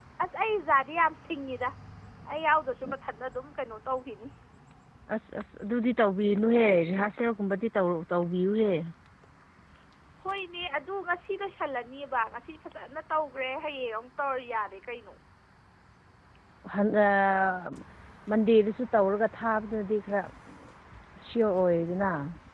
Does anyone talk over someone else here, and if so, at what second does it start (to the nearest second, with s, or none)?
none